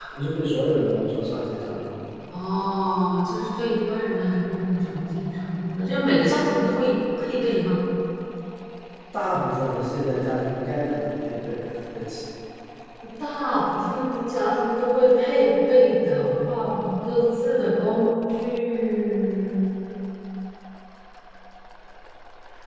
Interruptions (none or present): none